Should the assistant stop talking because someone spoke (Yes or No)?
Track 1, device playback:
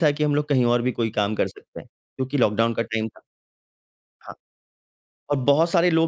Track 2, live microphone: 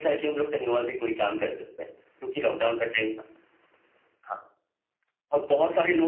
No